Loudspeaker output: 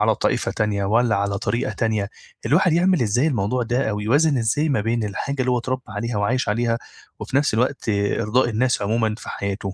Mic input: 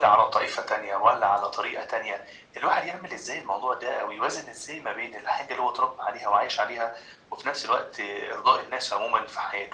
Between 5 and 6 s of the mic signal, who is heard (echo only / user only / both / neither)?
echo only